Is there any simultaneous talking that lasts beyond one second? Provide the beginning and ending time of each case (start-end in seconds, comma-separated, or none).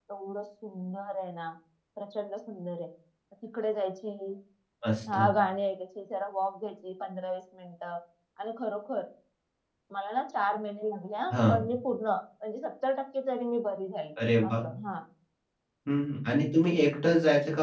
none